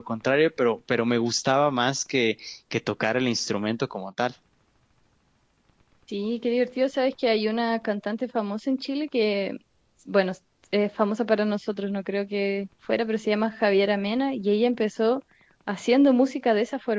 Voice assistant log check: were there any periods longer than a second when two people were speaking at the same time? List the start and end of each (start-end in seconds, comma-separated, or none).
none